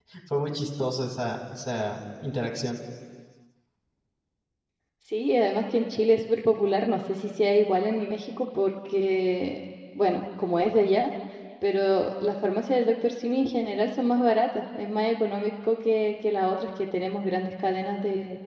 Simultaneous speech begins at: none

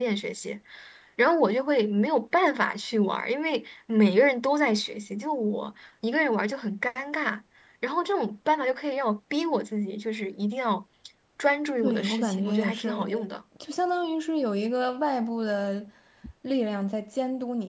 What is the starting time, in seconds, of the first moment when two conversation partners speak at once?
12 s

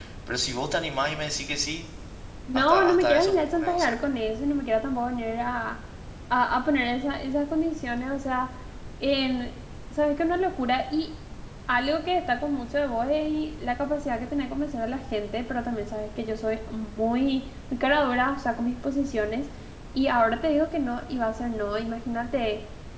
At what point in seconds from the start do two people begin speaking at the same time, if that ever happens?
3 s

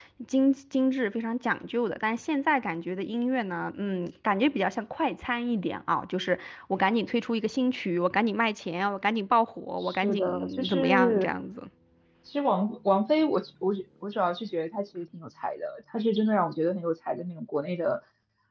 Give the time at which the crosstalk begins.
10 s

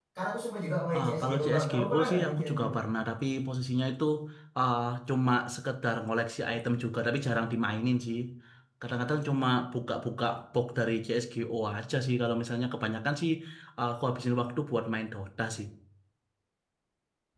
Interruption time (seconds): 1 s

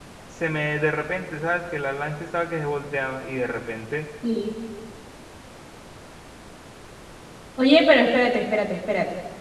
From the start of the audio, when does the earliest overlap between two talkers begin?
none

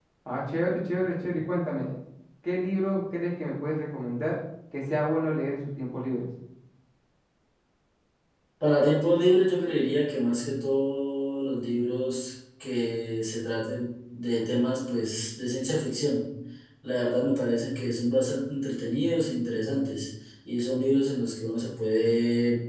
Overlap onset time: none

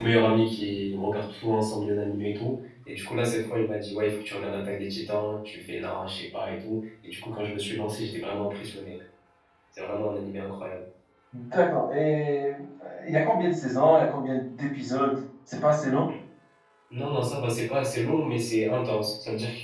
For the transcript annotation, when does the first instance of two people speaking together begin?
none

